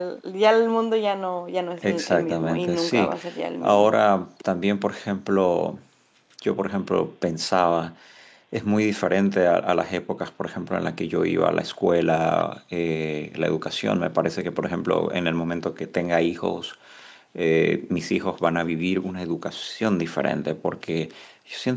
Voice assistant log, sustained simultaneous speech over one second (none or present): present